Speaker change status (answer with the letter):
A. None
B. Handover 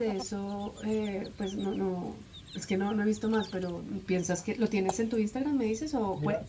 B